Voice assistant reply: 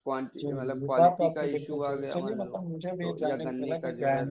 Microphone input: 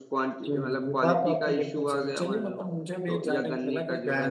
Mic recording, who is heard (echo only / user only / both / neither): echo only